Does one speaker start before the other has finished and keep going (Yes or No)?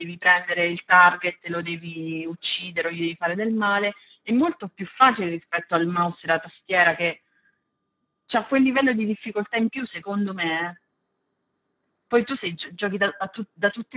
No